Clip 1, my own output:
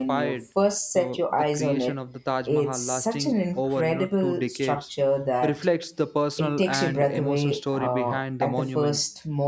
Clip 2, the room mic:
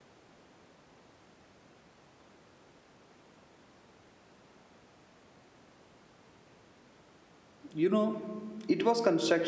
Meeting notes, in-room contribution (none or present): present